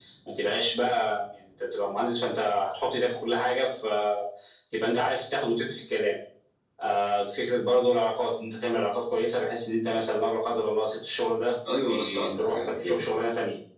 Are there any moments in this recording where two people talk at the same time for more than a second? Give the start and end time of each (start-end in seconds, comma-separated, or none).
11.9-13.1